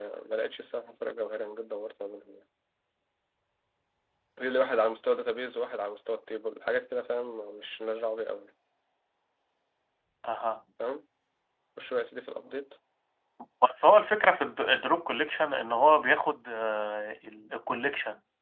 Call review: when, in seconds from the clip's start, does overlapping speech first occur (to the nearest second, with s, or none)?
none